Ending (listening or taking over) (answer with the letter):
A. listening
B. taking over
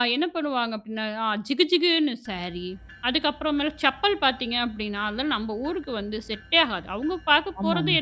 A